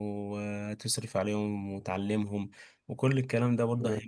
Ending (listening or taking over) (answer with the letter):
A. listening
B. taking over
A